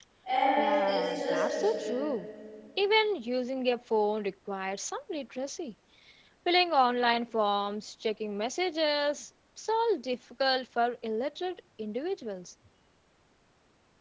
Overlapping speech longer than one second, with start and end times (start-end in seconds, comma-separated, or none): 0.6-2.0